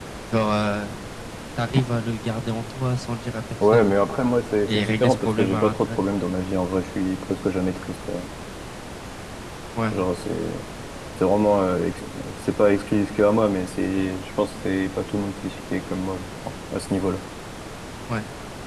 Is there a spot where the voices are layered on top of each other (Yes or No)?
Yes